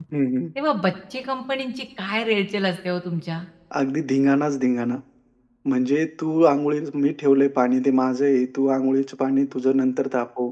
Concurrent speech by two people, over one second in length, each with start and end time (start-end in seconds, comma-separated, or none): none